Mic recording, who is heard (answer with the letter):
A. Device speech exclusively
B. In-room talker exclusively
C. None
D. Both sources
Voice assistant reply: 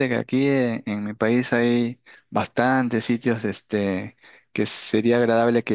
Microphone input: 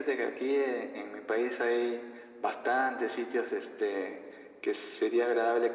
A